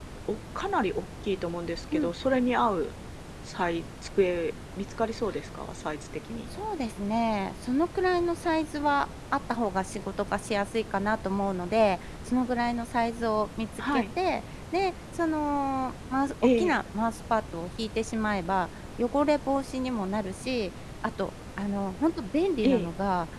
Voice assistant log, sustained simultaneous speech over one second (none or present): none